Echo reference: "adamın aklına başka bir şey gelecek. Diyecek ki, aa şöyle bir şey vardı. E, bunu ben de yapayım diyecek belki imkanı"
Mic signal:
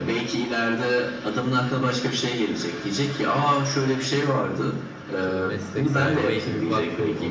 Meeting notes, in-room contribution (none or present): present